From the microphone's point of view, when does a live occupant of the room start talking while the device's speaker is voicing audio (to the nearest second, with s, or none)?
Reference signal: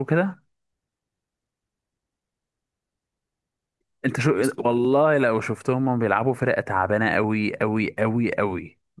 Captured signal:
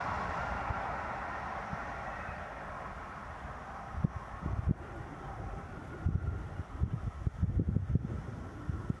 none